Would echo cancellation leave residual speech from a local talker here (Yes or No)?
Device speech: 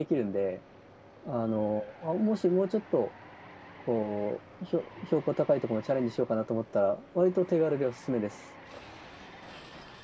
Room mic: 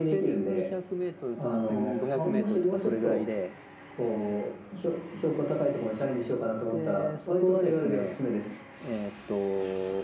Yes